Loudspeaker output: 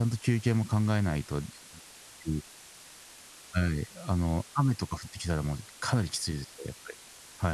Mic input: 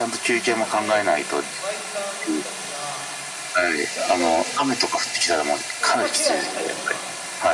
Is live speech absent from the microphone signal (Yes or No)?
No